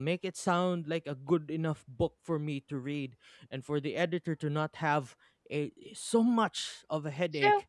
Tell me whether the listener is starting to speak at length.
Yes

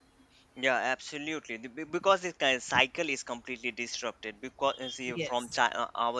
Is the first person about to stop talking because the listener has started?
No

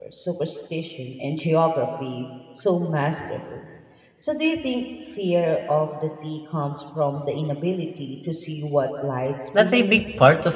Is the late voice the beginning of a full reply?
Yes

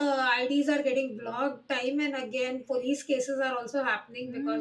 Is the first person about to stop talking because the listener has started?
Yes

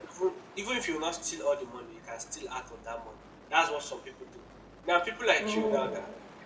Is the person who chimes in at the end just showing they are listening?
Yes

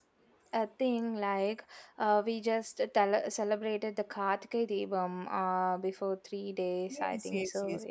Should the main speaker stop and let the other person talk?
Yes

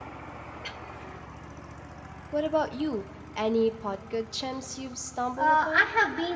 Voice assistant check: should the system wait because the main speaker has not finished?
No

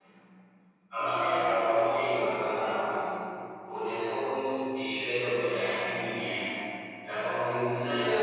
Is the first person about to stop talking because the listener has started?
Yes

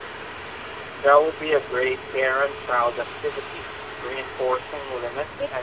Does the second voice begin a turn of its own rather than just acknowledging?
Yes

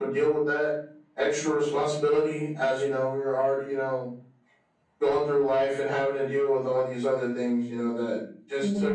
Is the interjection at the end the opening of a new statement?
No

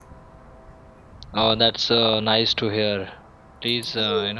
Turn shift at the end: No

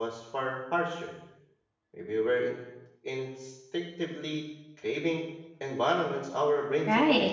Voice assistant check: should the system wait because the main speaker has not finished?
No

